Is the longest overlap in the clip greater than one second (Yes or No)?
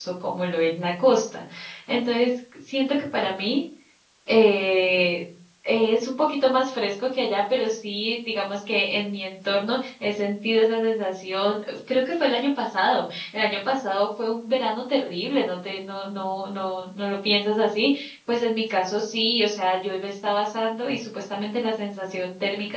No